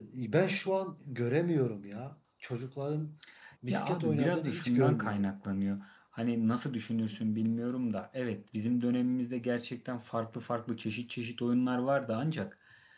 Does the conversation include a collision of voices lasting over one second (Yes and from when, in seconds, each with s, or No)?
Yes, from 3.7 s